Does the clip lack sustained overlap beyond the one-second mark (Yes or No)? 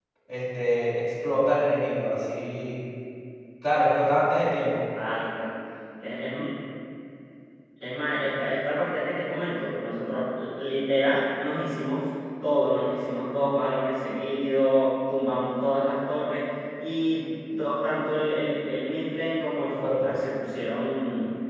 Yes